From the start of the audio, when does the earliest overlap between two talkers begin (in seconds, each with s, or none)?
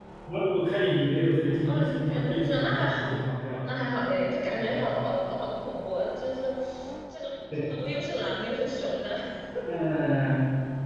1.6 s